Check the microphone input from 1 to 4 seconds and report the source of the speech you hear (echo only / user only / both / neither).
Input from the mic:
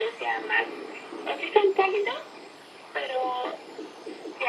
echo only